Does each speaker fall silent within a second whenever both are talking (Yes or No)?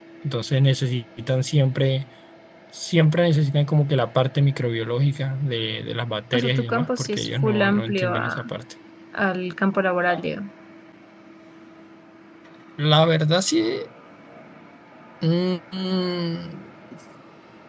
No